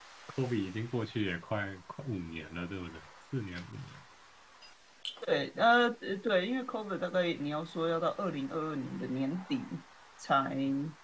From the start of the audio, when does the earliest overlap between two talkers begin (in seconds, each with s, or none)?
none